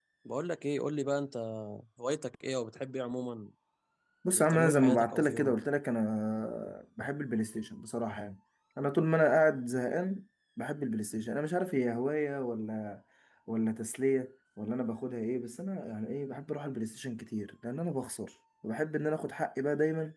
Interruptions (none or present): present